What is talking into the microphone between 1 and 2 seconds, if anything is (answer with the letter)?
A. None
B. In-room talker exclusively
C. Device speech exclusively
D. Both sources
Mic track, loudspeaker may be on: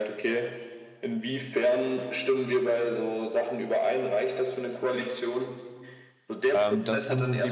C